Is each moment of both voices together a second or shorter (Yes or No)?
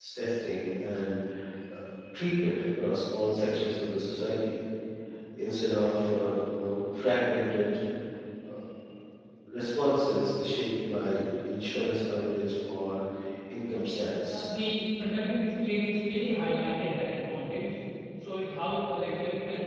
Yes